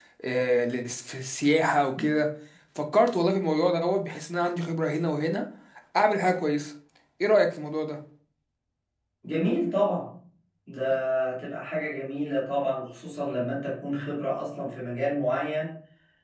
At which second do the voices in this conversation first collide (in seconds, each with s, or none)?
none